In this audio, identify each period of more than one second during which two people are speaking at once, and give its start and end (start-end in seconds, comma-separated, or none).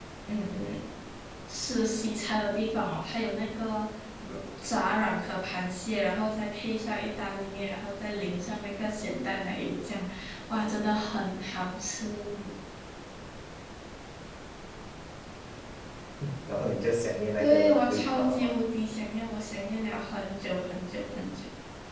17.4-18.6